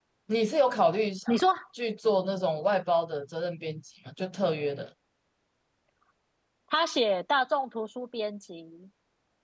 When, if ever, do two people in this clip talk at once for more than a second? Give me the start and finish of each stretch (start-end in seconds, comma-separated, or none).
none